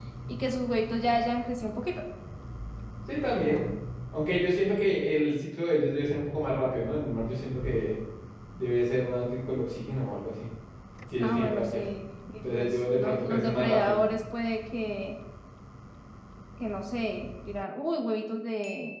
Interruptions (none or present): present